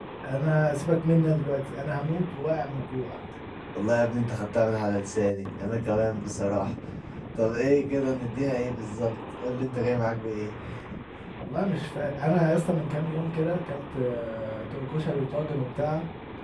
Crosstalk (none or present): none